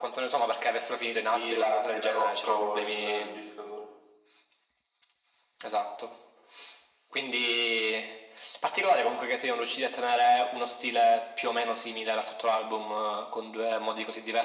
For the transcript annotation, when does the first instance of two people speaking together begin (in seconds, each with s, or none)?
1.2 s